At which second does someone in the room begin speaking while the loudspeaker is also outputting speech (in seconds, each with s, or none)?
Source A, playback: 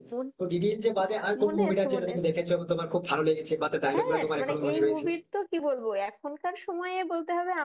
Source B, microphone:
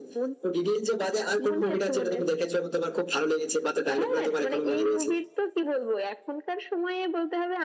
none